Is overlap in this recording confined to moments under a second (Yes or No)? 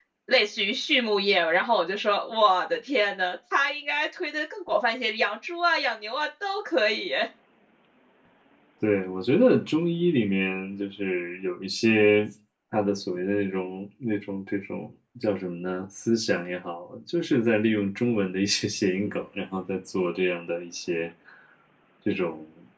Yes